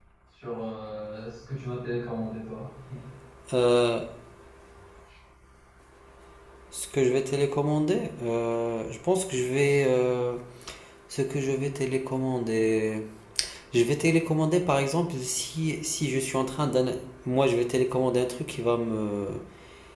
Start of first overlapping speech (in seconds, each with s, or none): none